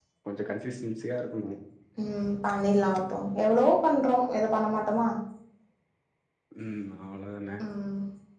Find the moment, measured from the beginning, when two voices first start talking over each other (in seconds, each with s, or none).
none